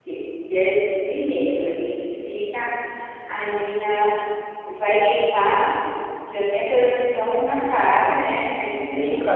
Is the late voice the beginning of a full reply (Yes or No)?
Yes